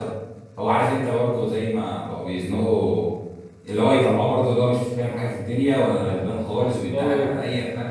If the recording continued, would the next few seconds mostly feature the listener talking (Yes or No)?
No